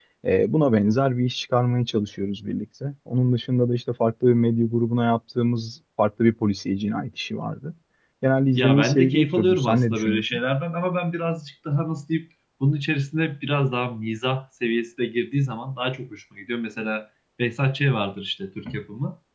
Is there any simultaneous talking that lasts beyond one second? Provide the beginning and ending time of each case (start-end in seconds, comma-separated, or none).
8.6-10.4